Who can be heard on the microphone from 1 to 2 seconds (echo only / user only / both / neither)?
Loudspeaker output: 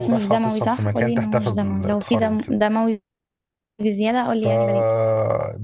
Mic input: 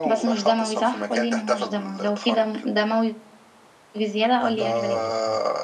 echo only